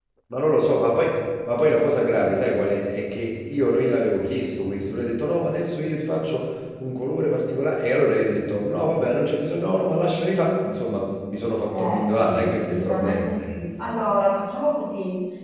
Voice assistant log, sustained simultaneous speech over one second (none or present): present